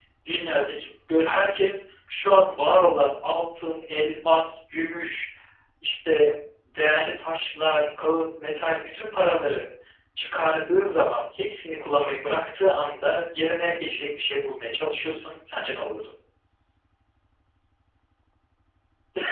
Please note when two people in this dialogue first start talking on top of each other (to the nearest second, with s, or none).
none